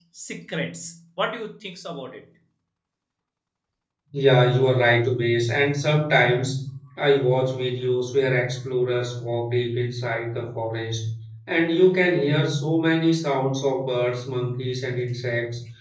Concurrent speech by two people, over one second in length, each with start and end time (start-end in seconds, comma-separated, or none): none